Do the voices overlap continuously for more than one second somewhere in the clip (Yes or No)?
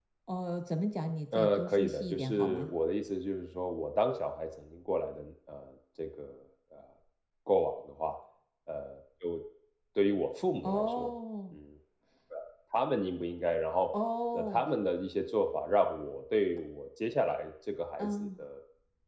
Yes